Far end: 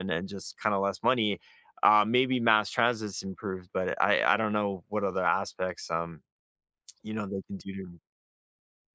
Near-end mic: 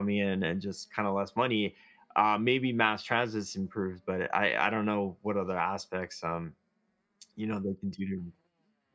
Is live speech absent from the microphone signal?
Yes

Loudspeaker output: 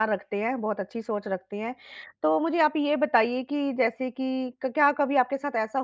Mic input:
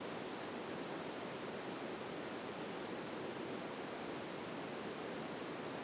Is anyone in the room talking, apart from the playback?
No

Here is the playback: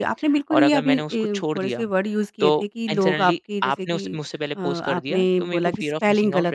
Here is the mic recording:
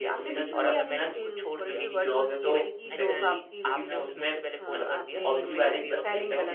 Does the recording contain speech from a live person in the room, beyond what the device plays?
Yes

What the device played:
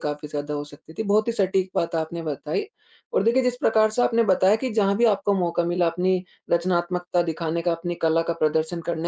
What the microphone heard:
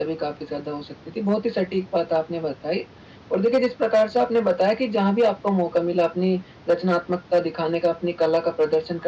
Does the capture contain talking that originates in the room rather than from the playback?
No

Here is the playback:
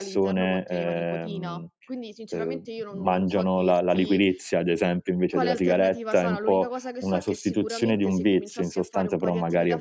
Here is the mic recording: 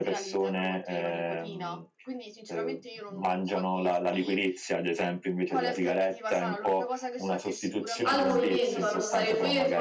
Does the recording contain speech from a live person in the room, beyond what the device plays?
Yes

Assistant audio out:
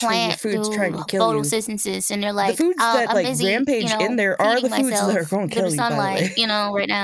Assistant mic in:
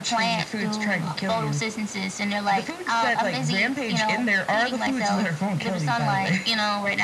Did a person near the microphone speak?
No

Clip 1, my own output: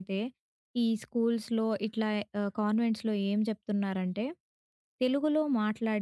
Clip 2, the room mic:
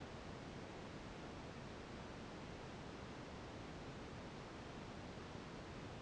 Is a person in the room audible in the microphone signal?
No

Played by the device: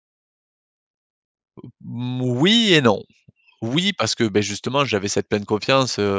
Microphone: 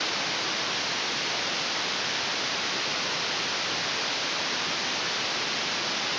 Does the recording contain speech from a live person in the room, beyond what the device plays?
No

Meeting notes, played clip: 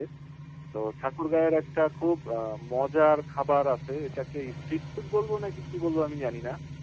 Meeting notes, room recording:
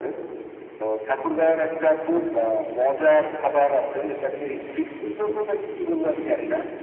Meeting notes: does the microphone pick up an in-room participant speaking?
No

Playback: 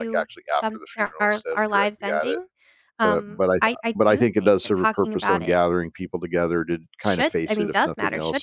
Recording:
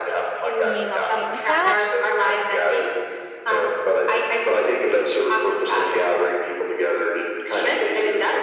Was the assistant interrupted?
Yes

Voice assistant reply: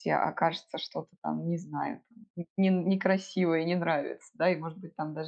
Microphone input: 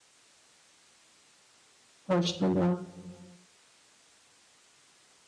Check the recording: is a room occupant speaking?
Yes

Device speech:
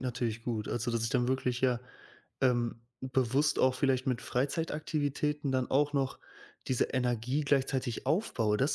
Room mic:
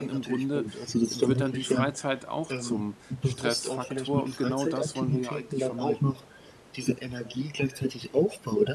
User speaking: Yes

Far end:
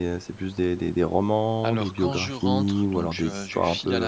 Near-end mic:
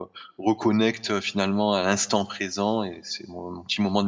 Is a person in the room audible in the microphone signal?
Yes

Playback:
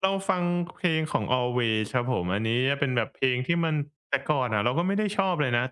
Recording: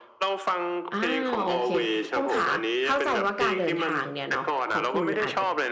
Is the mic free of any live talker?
No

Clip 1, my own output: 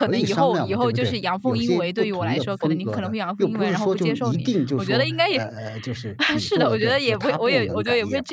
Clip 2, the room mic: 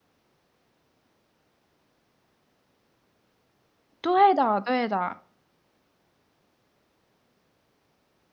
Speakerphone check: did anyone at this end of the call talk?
Yes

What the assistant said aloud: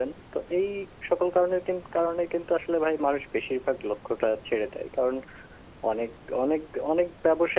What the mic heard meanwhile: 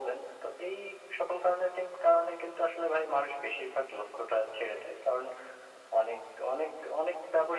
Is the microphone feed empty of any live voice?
Yes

